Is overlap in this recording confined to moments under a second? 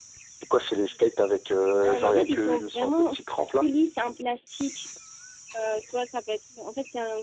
No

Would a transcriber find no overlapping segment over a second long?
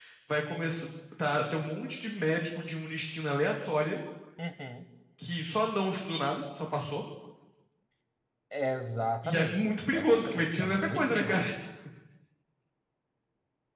No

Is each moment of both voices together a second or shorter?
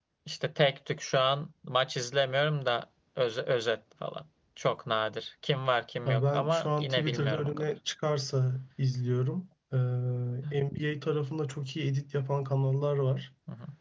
No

